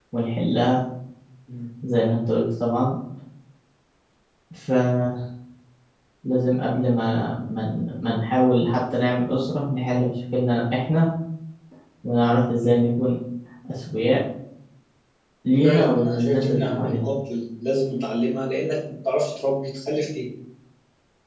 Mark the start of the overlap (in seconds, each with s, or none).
15.6 s